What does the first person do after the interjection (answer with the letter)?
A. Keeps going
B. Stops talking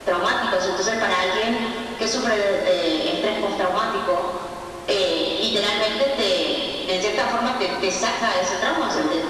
B